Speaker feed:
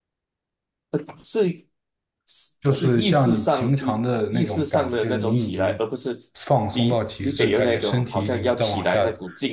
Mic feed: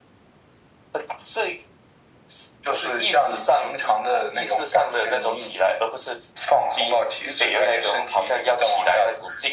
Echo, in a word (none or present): present